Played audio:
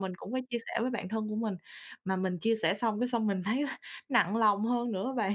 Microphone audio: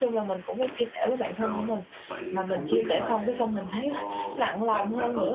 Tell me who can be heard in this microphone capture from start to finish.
both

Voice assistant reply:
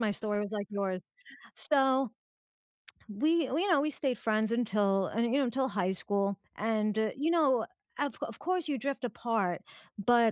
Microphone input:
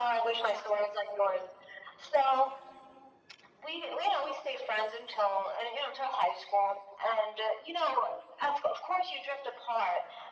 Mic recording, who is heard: echo only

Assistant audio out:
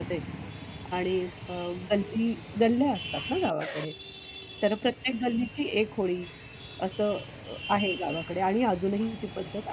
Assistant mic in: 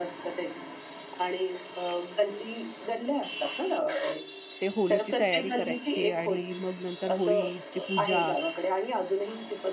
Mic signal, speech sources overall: both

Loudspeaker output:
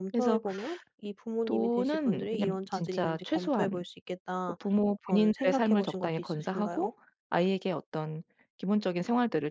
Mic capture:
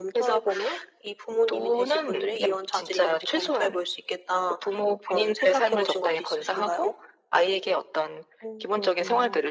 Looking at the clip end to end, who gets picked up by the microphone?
both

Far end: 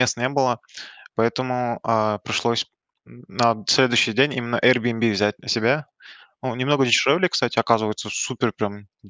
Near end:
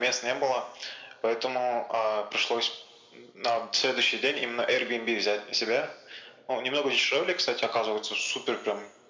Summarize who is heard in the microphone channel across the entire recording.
echo only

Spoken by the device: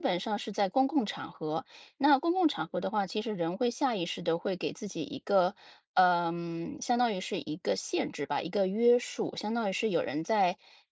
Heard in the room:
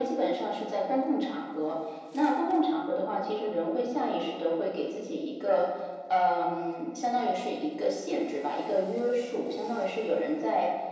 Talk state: echo only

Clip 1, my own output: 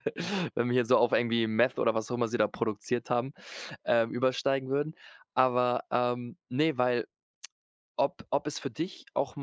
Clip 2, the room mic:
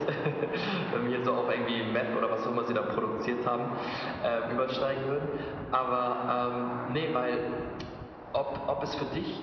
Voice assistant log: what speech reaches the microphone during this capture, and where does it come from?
echo only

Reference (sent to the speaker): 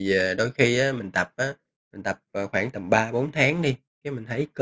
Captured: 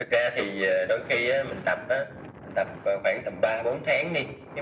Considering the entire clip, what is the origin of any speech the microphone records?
echo only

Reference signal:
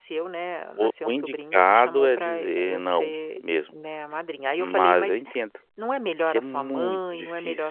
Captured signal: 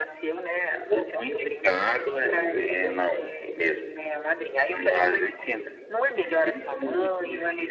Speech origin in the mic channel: echo only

